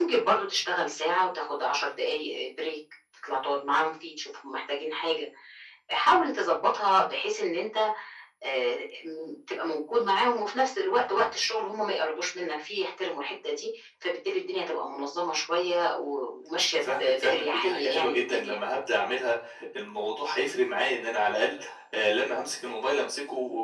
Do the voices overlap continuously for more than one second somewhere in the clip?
Yes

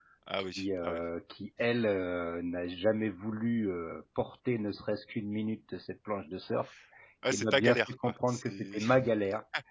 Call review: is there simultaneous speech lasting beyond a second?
Yes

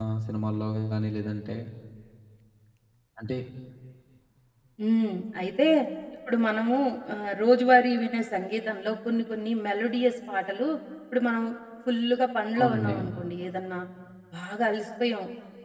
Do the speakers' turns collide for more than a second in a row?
No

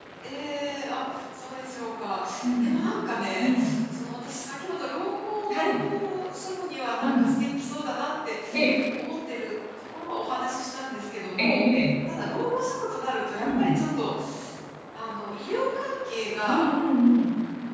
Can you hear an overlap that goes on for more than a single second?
No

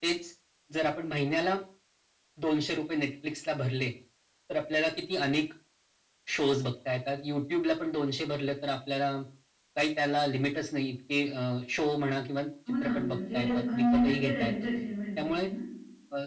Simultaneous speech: Yes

